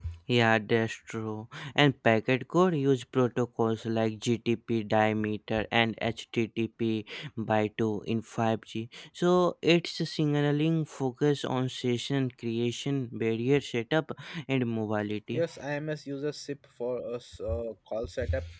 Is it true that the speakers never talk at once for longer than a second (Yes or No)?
Yes